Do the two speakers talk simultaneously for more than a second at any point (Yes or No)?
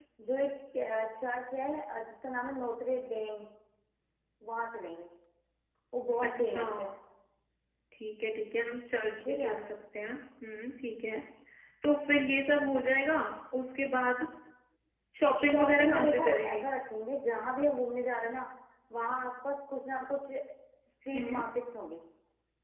Yes